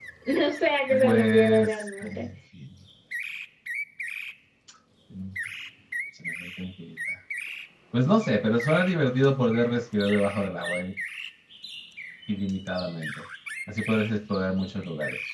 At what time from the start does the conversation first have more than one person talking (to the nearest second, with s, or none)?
1 s